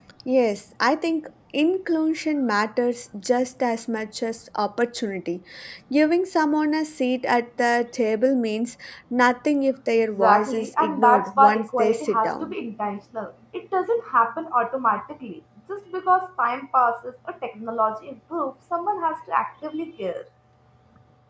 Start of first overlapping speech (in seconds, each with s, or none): 10.2 s